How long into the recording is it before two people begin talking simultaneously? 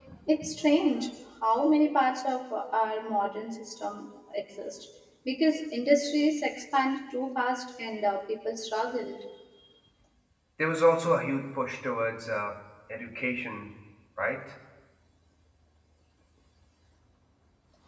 none

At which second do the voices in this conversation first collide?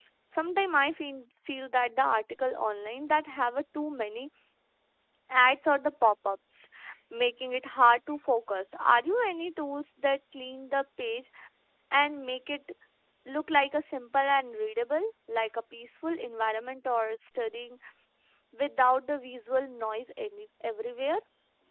none

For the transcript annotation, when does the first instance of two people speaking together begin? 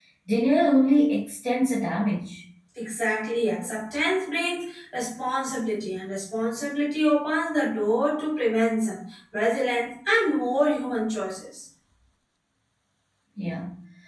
none

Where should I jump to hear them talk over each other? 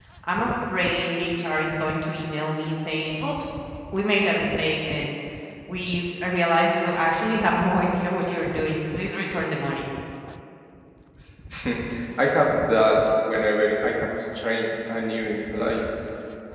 none

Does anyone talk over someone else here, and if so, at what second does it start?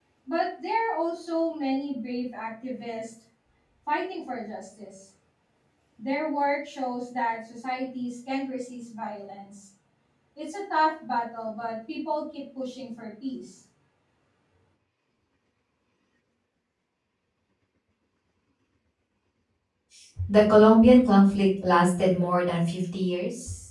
none

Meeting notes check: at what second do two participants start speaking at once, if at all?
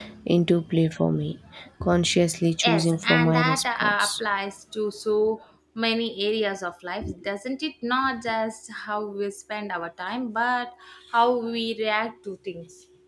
2.6 s

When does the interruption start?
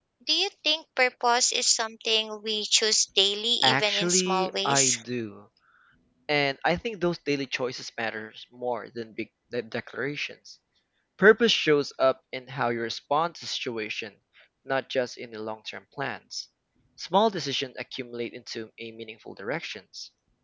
3.6 s

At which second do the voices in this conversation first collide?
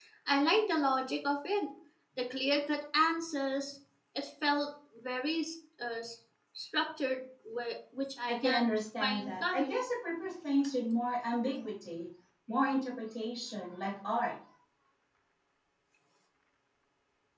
8.3 s

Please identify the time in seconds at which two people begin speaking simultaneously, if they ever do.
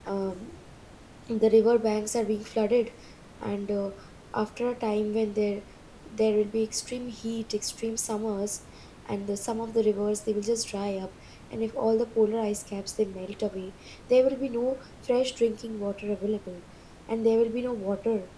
none

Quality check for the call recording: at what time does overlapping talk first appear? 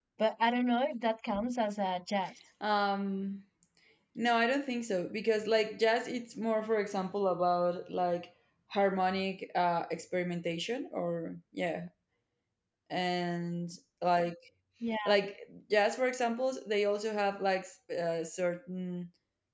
none

